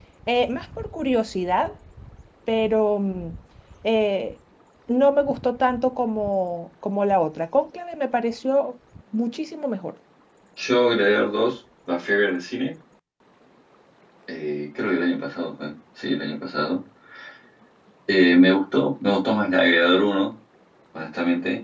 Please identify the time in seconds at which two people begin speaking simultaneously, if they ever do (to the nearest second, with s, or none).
none